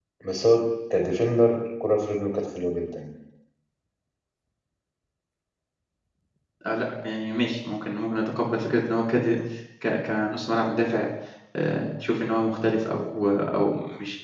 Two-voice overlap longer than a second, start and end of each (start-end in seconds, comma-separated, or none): none